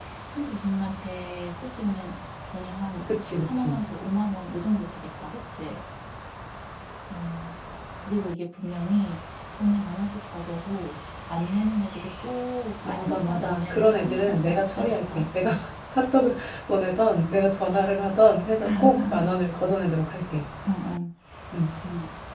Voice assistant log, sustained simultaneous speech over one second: present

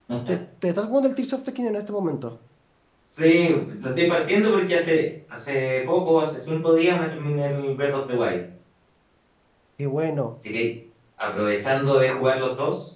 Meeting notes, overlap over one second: none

